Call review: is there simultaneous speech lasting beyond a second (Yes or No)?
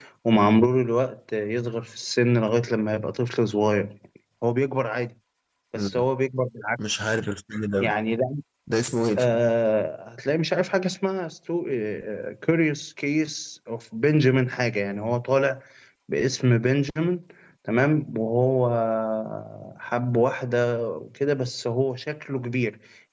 No